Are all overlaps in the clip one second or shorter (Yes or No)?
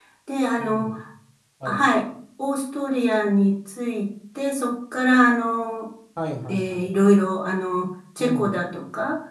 Yes